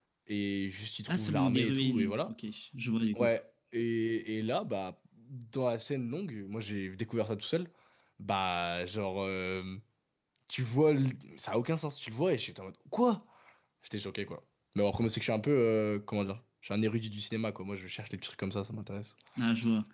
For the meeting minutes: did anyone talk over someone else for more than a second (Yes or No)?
Yes